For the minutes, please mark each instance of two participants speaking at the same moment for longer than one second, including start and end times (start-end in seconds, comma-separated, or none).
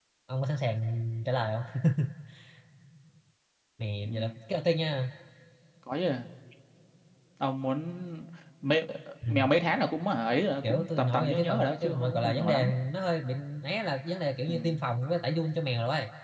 10.6-12.7